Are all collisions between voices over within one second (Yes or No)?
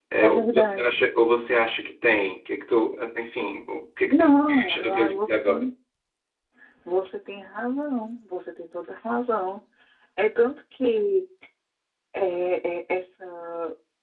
No